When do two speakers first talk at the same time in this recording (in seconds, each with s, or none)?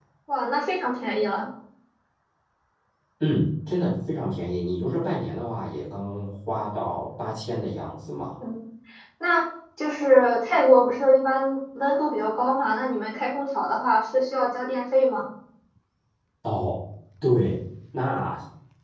none